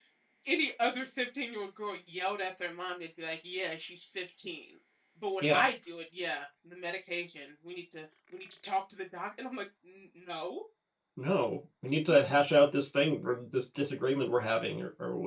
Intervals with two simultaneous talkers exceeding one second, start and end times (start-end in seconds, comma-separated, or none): none